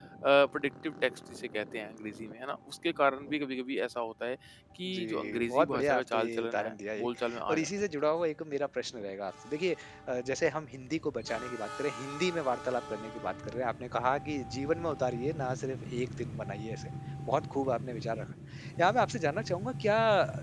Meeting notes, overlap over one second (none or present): present